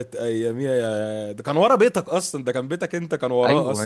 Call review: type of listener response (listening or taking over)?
taking over